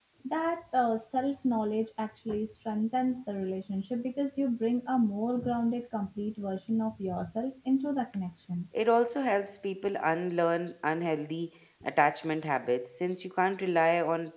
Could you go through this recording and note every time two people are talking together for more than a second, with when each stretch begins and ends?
none

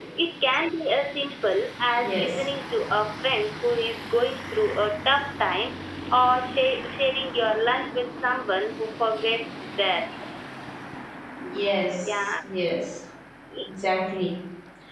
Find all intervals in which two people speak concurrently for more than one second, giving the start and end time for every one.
none

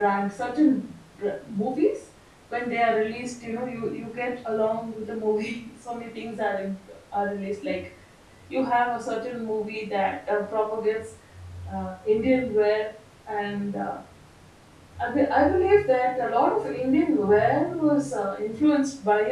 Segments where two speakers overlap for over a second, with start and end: none

